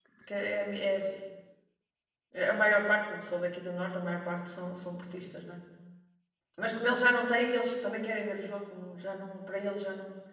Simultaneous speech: No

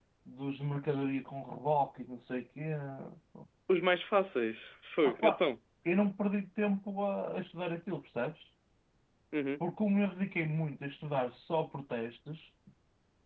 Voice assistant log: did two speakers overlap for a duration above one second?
No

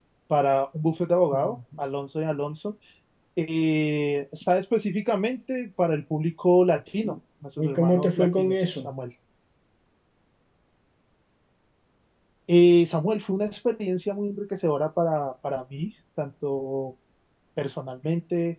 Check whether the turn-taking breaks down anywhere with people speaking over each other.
Yes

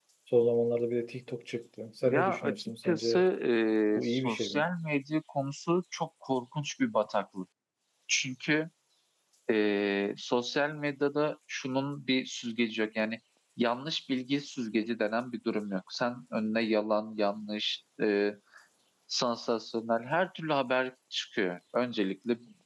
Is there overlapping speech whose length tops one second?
Yes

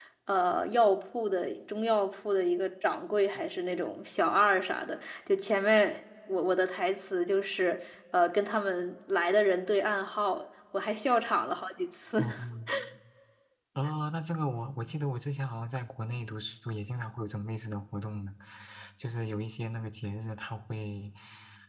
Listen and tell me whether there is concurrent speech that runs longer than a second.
No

